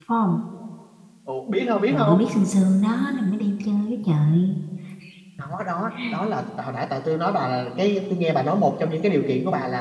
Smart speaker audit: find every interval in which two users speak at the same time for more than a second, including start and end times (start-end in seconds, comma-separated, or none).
none